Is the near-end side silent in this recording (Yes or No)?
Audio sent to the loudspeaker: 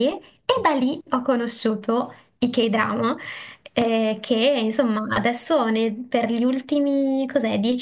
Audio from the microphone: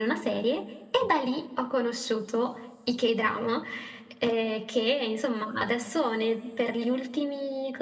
Yes